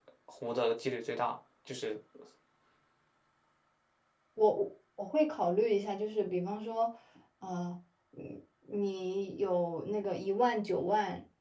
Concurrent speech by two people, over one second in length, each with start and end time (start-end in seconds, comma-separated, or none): none